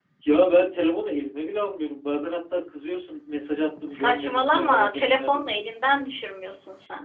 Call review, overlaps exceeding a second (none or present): present